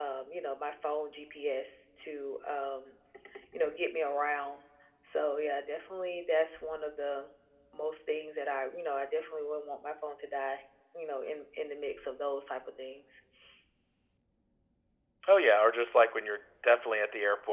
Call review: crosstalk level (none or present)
none